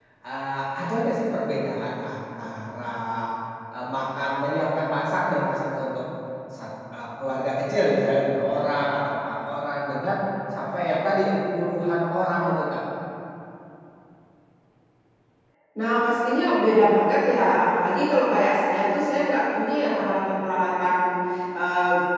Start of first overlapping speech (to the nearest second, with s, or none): none